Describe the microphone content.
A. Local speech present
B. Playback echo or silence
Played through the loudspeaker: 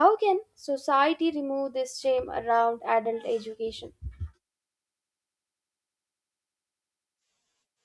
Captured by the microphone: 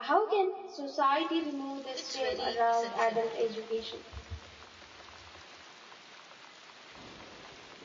A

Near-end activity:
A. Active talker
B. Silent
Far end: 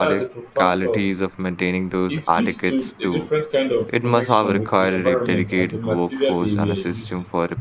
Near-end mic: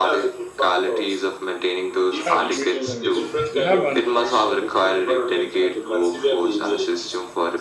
A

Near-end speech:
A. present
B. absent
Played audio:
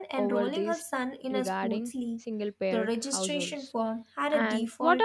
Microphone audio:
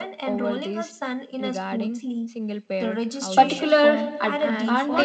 A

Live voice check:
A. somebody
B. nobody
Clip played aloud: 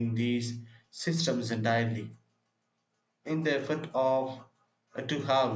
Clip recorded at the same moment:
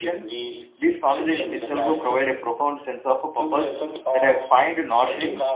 A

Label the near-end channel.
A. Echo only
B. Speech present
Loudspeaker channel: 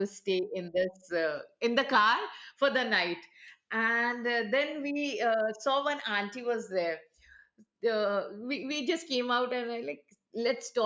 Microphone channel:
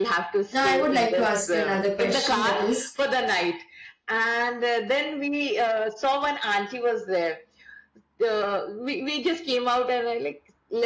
B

